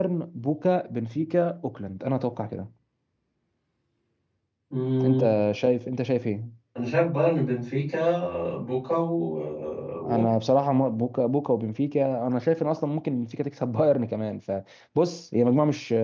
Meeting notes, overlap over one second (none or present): none